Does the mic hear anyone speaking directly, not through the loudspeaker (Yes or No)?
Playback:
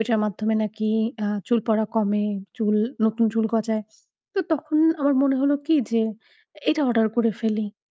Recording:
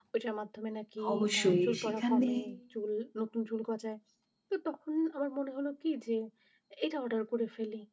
Yes